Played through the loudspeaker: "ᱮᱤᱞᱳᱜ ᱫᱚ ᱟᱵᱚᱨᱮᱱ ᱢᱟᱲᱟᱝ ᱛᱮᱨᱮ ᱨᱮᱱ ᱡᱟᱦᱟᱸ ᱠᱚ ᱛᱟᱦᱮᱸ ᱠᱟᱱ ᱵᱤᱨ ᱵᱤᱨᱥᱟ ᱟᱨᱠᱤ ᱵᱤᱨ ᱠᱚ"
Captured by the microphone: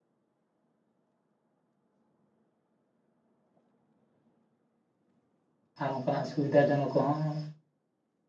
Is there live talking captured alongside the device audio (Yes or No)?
Yes